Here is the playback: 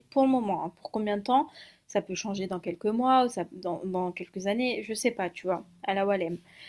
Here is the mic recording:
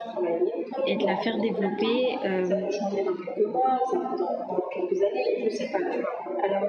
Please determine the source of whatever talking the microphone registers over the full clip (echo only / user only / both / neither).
both